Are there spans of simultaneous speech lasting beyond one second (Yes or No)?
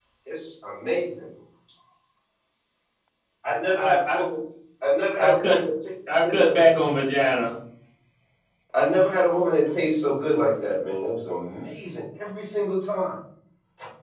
No